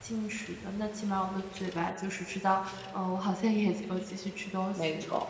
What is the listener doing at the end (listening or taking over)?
taking over